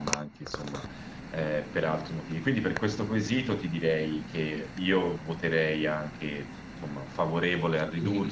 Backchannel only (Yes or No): No